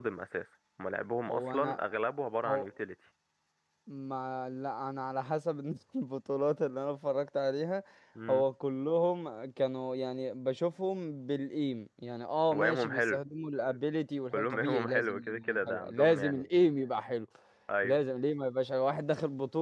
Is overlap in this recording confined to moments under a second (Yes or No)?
No